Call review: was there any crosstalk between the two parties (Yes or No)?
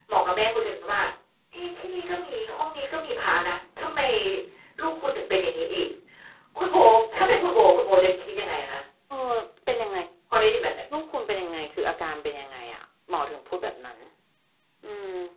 No